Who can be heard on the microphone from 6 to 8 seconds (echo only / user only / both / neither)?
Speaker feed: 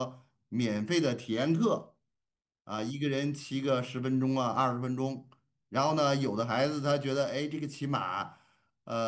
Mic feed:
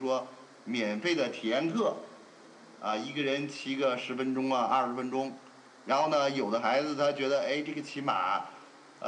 echo only